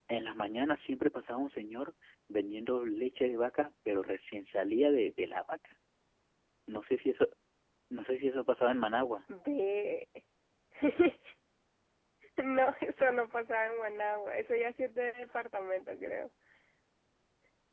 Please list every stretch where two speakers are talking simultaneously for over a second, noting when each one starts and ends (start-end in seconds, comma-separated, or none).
none